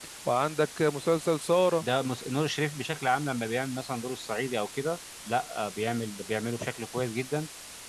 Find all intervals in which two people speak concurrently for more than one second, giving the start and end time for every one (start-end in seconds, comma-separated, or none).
none